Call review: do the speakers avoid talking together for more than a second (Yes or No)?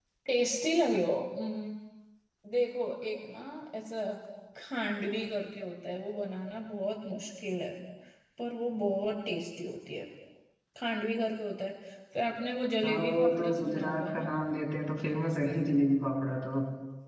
No